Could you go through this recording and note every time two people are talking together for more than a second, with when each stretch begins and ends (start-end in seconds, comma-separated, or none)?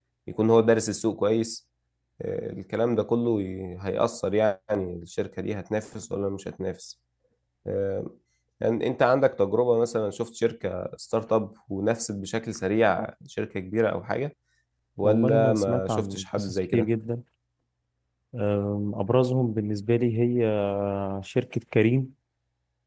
15.0-16.9